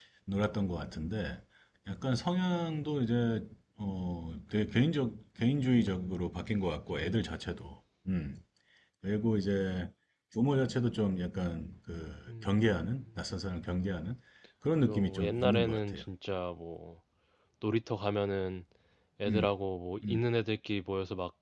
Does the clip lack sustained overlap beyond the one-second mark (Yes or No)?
No